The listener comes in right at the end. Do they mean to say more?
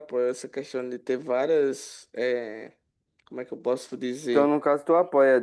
Yes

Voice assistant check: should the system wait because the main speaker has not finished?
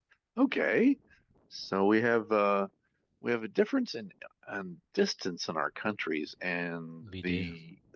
Yes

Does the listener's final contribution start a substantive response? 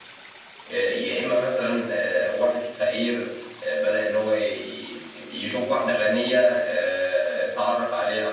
No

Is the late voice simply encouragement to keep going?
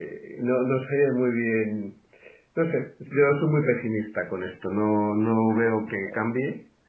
Yes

